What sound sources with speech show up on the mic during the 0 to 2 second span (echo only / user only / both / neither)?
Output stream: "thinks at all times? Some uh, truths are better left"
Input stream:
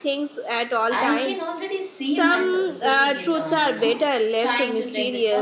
both